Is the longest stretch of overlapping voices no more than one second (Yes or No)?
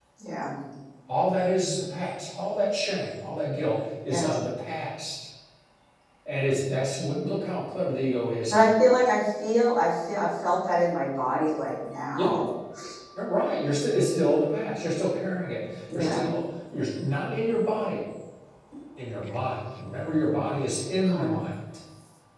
Yes